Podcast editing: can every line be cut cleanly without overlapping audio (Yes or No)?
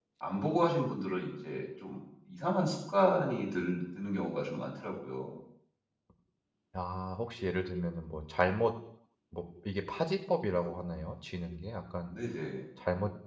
Yes